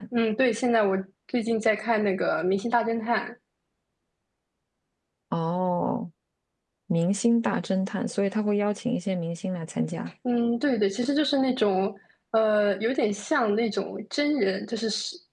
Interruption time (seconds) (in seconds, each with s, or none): none